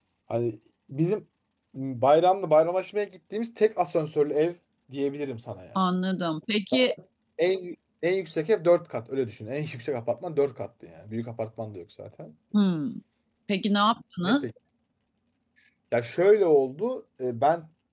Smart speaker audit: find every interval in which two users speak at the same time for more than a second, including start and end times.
none

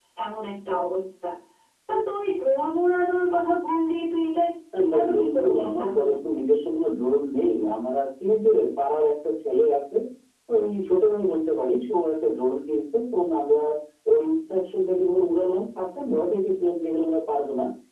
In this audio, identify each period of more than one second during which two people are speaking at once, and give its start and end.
4.8-6.1

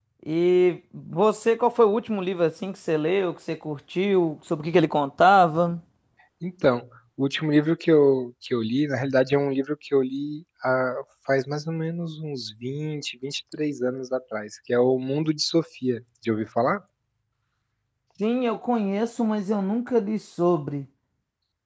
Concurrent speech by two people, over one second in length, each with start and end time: none

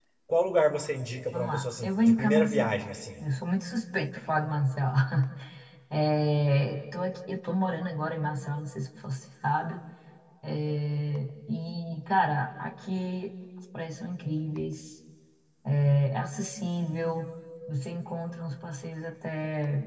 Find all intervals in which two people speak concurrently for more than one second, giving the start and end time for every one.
1.3-2.8

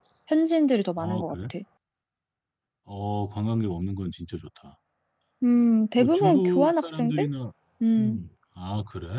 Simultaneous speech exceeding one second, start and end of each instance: 6.0-7.3

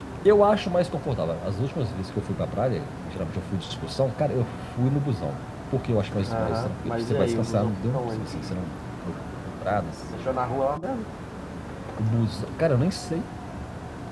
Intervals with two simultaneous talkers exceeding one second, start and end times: 6.3-8.3

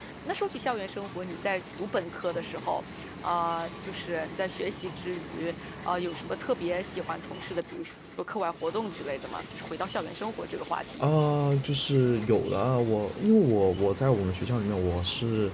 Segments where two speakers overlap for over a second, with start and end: none

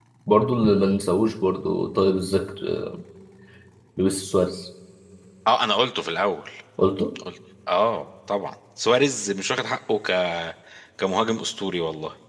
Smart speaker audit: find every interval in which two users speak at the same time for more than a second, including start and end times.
none

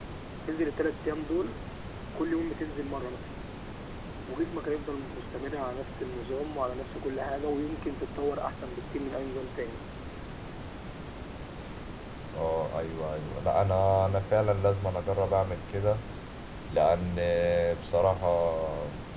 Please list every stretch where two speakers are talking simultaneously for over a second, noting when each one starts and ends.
none

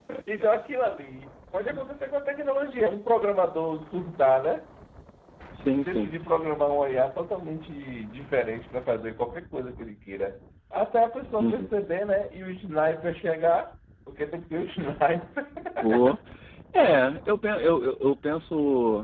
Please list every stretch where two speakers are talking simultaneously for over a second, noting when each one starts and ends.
none

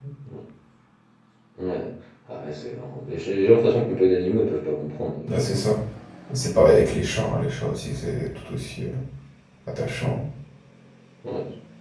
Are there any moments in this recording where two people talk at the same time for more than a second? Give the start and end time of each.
none

